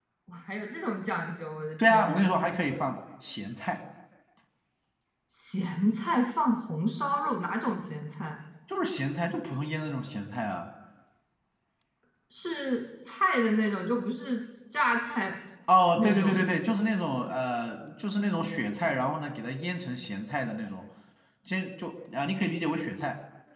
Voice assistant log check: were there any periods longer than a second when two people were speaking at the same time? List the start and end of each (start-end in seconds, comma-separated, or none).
none